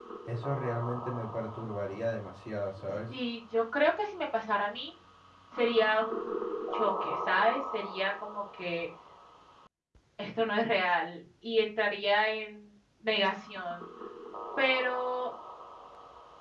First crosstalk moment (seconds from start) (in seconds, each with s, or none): none